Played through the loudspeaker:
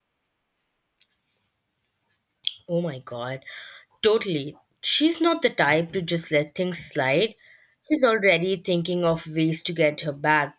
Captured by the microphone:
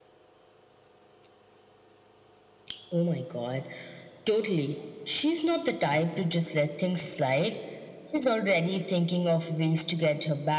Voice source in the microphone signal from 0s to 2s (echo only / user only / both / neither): neither